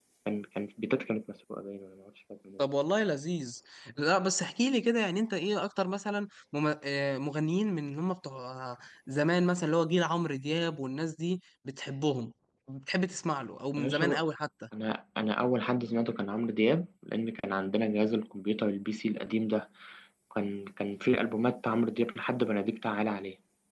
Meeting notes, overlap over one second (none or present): none